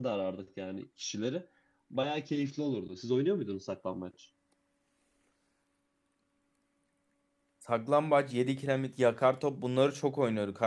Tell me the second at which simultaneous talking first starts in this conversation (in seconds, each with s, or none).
none